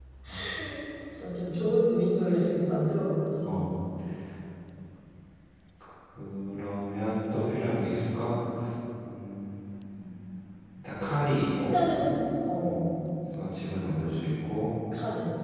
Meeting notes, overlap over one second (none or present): none